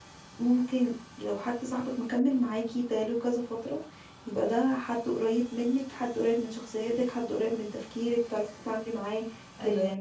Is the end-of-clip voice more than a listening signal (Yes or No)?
No